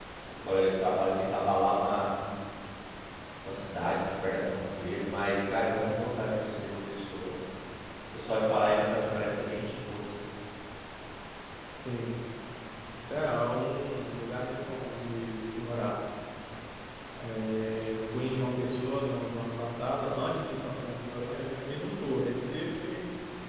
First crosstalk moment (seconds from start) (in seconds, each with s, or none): none